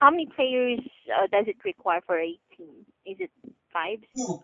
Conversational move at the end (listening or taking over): taking over